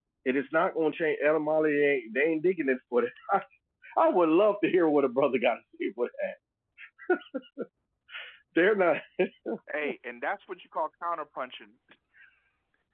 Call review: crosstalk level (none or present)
none